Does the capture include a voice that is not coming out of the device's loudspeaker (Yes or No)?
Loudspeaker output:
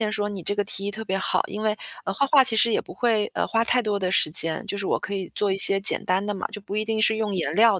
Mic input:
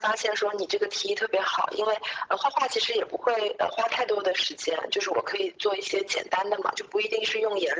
No